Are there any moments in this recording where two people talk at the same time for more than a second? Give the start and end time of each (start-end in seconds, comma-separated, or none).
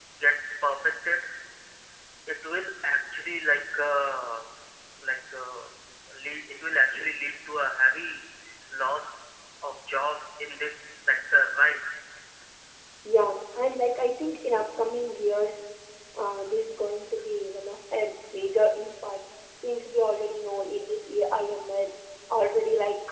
none